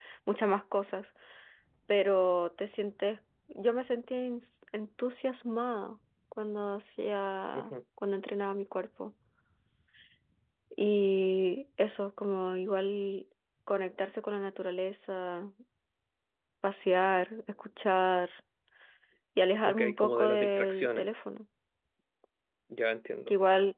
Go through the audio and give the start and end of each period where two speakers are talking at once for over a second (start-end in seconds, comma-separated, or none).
19.6-21.1